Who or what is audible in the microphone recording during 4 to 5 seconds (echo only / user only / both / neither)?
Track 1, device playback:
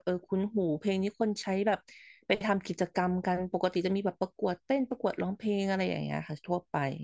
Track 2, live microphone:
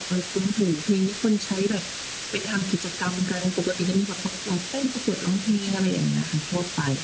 echo only